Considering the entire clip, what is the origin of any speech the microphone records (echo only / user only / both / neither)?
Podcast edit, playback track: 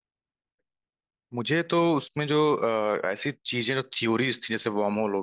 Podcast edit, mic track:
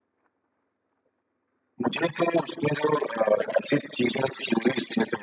echo only